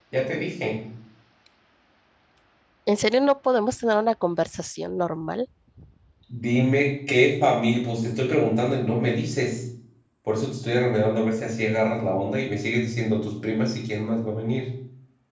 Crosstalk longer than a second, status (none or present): none